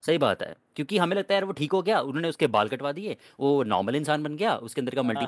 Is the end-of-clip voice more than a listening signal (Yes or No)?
No